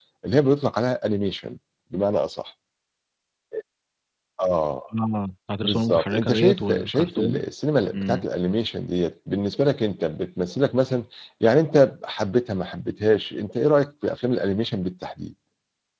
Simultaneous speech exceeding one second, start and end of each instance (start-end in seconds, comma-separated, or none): 5.6-7.4